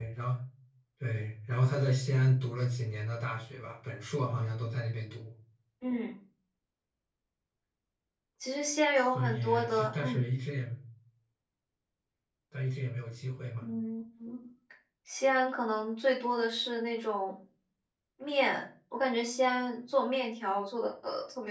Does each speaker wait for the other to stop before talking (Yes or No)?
No